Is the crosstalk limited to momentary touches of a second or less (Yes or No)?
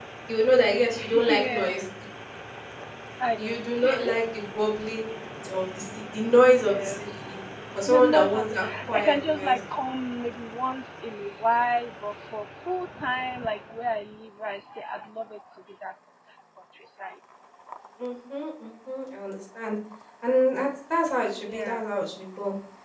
No